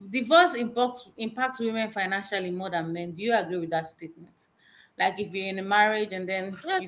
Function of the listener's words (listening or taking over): taking over